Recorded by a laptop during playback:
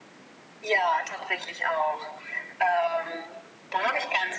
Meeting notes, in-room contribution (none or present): none